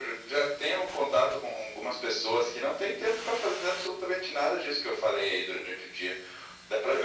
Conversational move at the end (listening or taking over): listening